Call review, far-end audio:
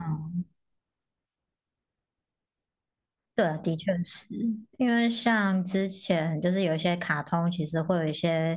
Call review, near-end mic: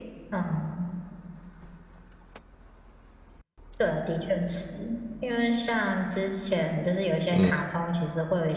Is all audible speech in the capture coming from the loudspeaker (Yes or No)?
No